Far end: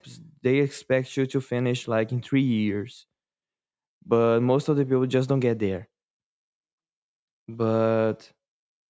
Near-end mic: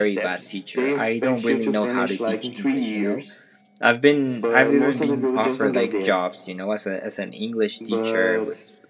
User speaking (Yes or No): Yes